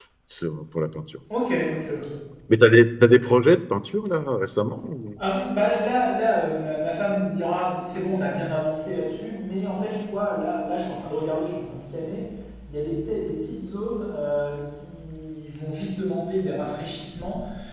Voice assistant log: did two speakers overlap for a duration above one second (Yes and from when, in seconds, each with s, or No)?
No